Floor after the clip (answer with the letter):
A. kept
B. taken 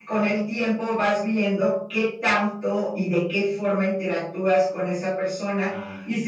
A